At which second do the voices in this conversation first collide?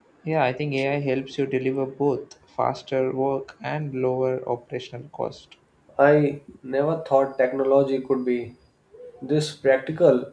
none

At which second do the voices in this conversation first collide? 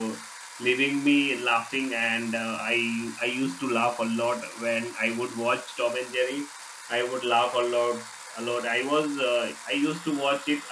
none

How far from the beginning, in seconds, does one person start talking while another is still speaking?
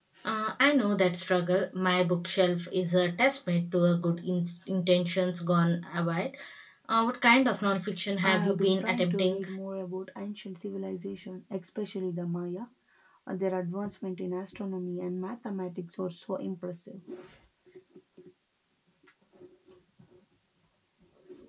8.2 s

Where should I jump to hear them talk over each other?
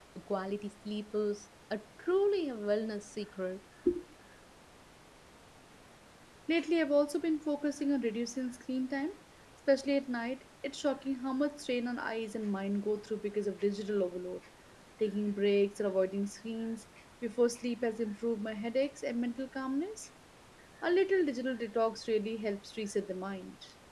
none

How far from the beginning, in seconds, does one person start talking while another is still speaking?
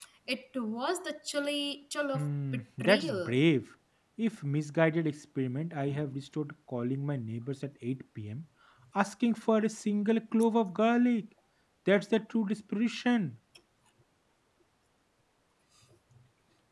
2.1 s

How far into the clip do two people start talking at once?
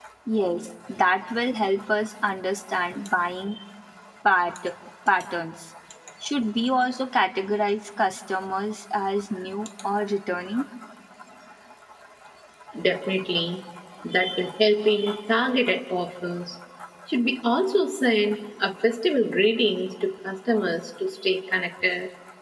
none

